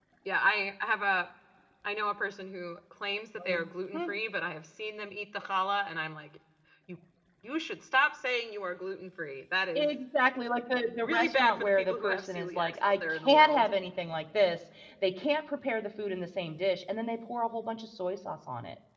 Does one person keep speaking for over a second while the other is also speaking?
Yes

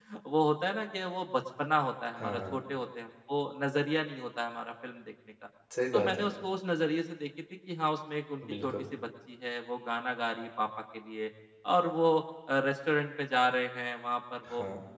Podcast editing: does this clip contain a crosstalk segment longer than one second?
No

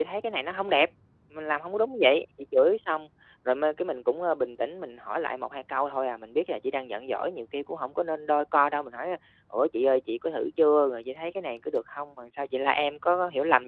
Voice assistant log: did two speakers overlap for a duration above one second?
No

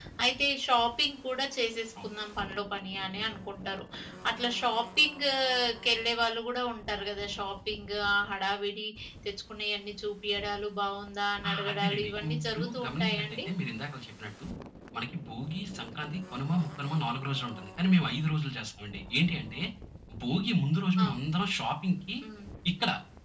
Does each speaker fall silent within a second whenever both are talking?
No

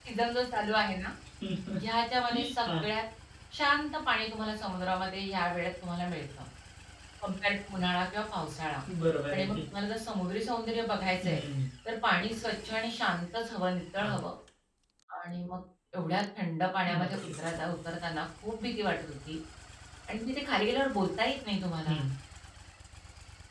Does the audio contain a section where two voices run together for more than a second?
No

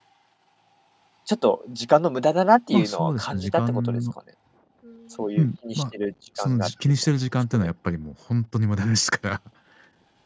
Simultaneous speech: Yes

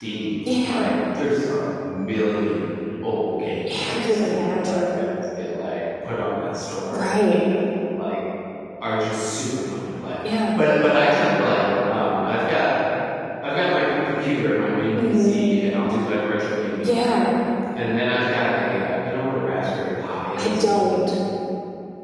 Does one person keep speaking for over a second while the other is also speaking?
Yes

